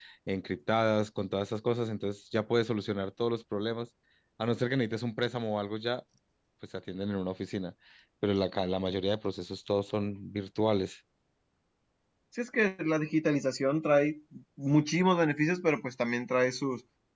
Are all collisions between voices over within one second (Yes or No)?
Yes